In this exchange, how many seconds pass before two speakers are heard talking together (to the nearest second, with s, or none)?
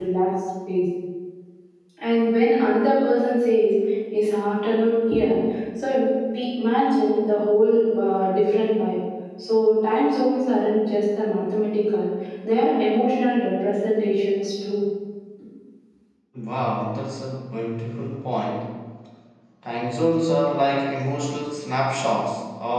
none